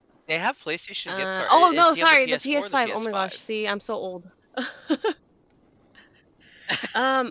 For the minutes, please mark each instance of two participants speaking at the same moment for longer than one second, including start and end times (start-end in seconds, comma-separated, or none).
1.1-3.4